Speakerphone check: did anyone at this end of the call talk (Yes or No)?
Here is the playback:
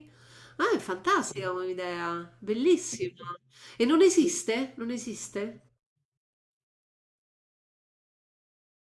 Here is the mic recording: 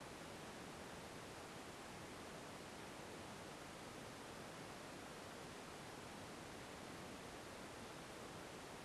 No